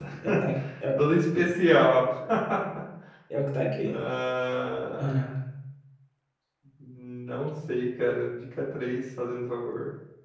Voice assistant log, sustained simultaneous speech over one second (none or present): none